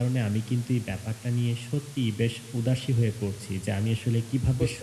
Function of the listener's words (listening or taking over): listening